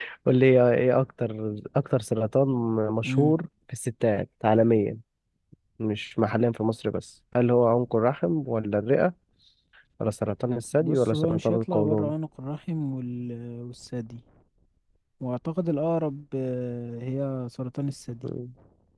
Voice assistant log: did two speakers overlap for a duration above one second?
Yes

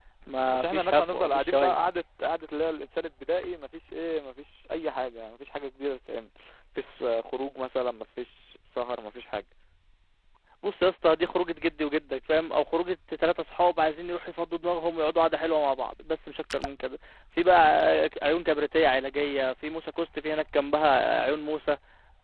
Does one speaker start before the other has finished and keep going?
Yes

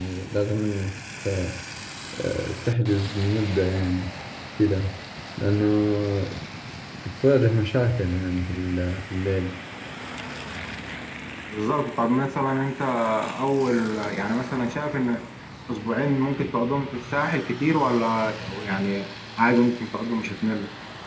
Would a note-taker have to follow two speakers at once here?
No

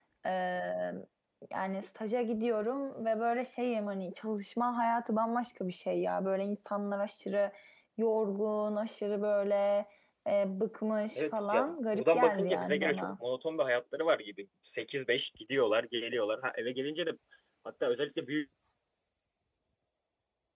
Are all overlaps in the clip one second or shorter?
No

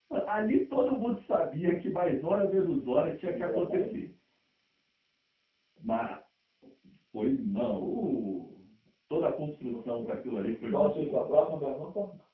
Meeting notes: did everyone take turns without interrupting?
No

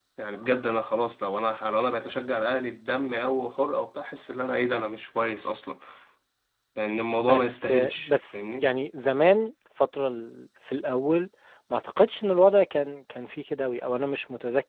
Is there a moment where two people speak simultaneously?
Yes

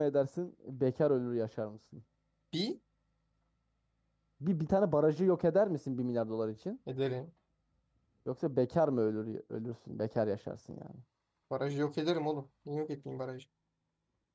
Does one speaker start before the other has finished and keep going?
No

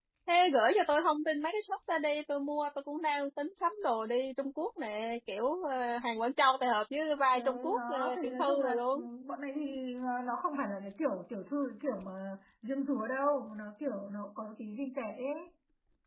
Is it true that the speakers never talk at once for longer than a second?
No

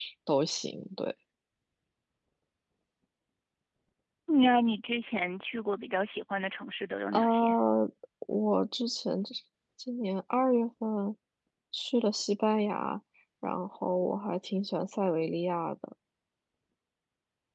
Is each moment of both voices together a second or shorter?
Yes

